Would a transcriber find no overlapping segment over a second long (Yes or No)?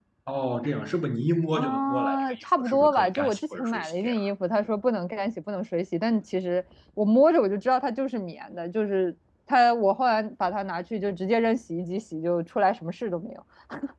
No